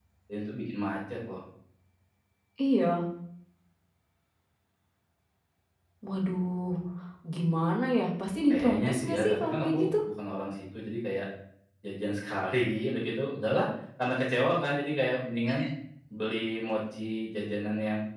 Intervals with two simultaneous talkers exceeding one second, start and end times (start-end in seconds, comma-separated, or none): 8.5-9.9